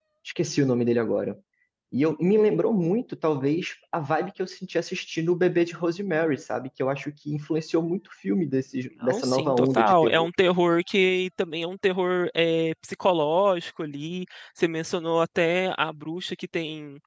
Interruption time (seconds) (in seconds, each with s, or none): 9.0 s